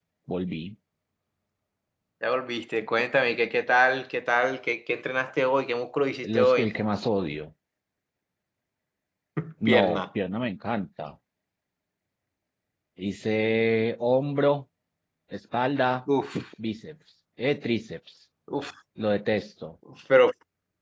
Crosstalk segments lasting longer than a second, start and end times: none

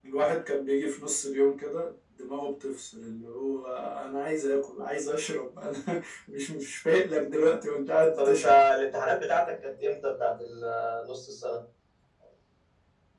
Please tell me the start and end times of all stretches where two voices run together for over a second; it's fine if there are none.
none

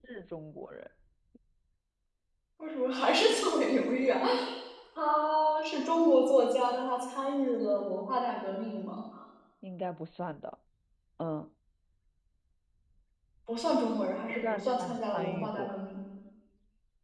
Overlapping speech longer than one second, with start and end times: 14.5-15.7

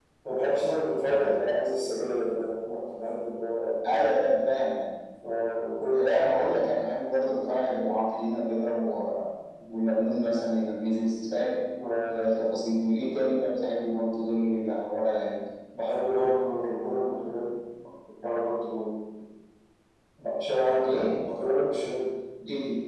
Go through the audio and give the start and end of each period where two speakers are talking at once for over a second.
none

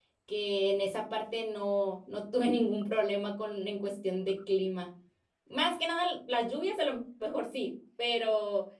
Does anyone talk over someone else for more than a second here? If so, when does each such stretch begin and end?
none

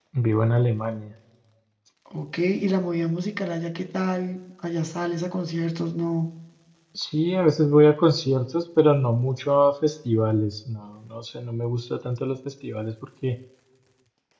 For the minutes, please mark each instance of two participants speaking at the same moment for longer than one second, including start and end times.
none

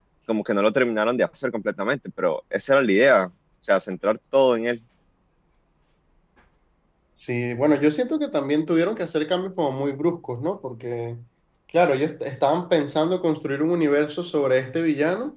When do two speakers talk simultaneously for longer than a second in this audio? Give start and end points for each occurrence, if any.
none

